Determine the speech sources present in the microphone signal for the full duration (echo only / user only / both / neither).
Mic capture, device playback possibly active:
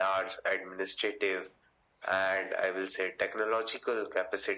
echo only